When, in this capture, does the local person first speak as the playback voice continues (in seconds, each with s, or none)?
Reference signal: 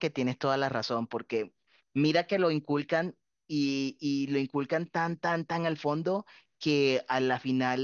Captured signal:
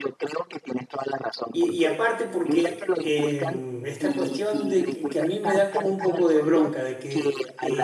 1.5 s